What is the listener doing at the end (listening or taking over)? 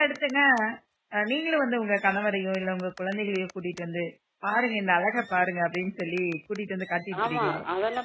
taking over